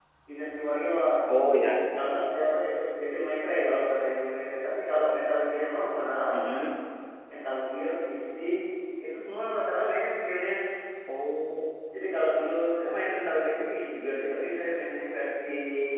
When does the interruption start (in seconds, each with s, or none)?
none